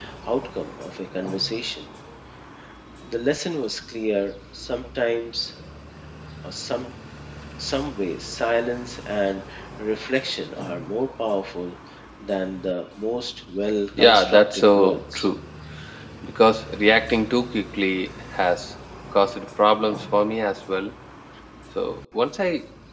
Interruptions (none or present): present